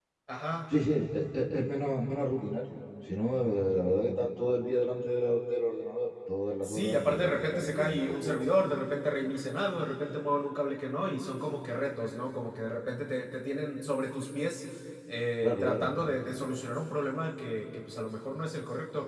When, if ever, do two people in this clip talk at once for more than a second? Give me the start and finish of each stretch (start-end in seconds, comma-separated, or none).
6.6-8.4